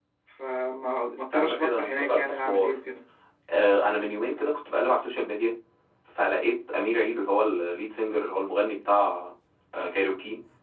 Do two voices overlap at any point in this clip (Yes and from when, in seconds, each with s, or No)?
Yes, from 1.1 s